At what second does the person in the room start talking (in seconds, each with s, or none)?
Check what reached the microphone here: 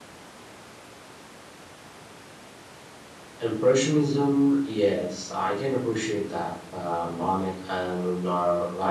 3.4 s